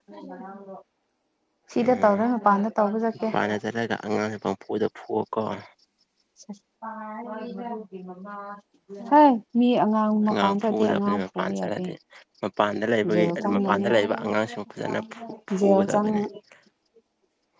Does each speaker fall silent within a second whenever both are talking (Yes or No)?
No